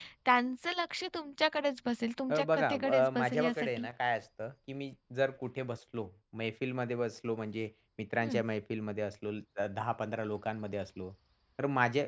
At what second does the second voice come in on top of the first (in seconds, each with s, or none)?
2.3 s